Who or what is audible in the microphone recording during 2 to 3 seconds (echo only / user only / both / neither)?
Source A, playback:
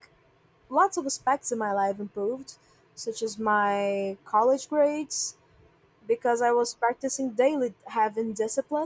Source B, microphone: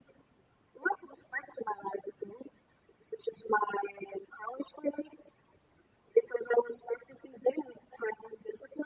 echo only